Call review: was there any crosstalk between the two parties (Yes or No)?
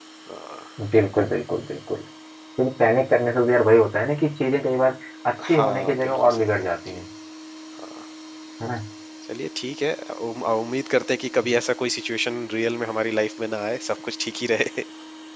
Yes